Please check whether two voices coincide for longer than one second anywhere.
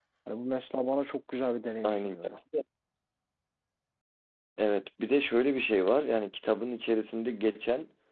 No

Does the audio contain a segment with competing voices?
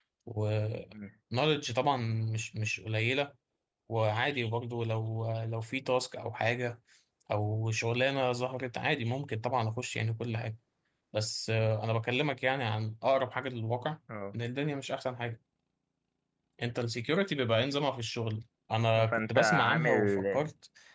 Yes, from 18.9 s

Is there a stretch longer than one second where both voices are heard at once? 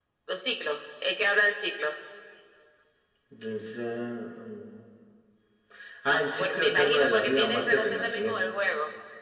Yes, from 6.1 s

